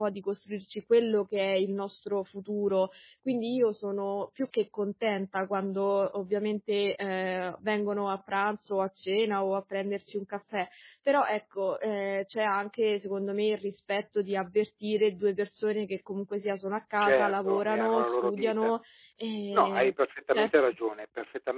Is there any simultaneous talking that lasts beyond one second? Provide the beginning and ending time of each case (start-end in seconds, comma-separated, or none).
17.0-18.7